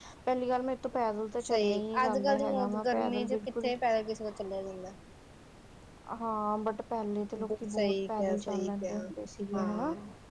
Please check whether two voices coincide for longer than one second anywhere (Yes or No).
Yes